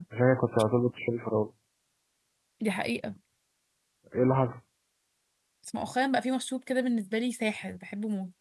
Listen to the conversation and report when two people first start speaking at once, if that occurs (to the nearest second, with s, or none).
none